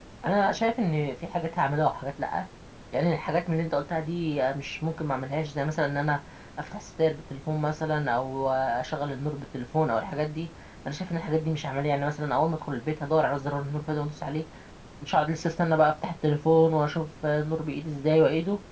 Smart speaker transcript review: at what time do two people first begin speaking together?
none

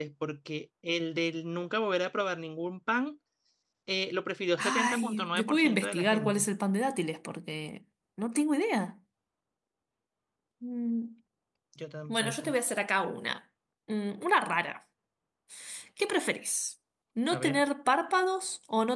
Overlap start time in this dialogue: 4.6 s

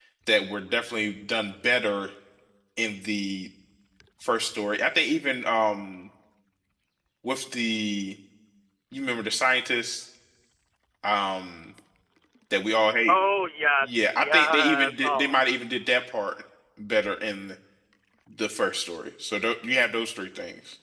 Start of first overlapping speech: 13.8 s

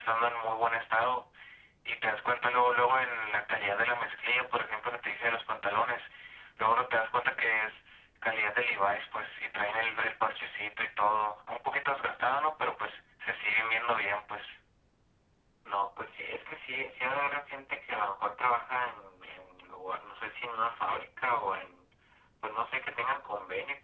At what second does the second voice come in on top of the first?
none

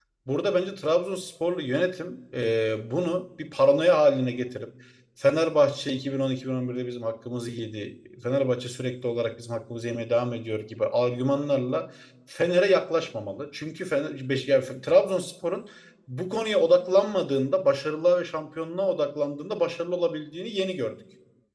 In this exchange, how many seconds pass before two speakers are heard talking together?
none

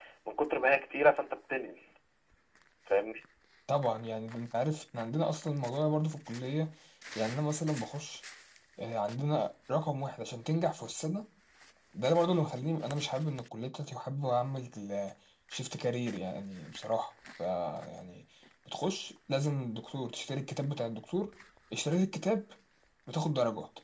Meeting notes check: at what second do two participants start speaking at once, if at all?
none

